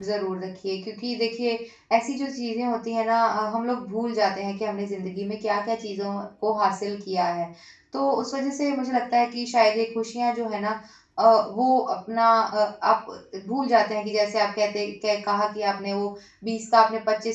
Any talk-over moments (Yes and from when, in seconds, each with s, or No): No